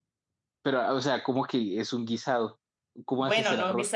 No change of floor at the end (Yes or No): No